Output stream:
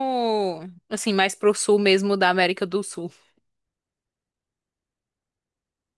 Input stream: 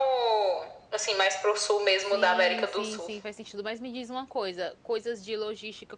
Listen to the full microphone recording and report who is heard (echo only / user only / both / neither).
both